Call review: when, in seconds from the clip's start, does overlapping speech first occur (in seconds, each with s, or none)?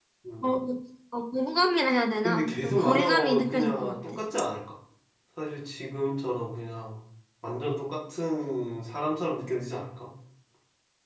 2.2 s